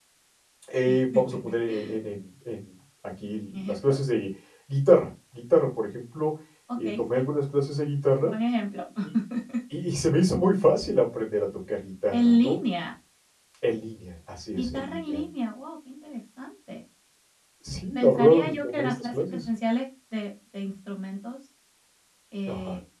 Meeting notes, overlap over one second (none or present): present